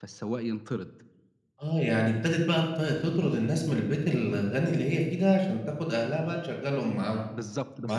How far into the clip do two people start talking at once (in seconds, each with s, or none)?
none